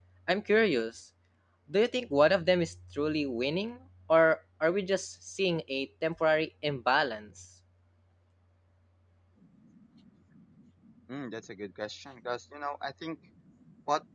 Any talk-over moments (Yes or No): No